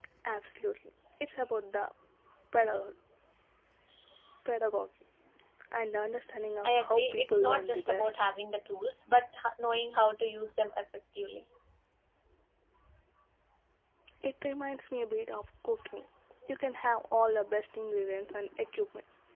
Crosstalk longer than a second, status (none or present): present